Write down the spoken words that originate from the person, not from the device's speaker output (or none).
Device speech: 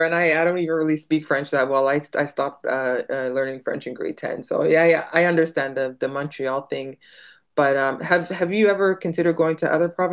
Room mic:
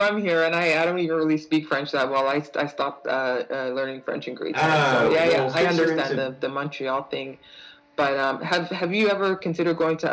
Uh, well, since you're into